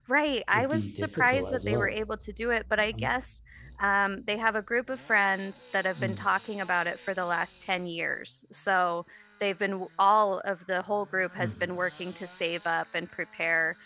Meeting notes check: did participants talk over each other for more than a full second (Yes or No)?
Yes